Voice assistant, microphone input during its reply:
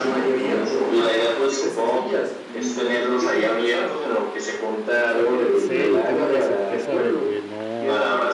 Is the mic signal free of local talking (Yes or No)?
No